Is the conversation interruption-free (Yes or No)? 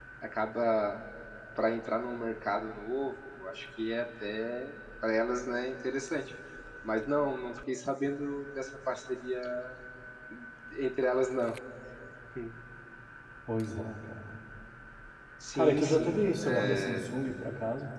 No